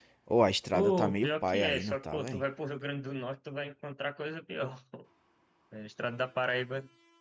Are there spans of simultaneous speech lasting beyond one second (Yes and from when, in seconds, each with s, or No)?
Yes, from 0.7 s